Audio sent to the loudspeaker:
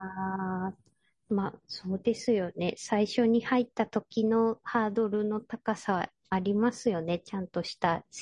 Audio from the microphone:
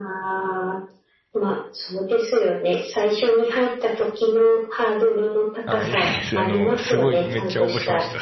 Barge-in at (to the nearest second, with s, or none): 6 s